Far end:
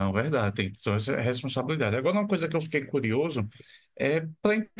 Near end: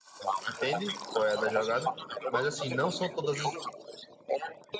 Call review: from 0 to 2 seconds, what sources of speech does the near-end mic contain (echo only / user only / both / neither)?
both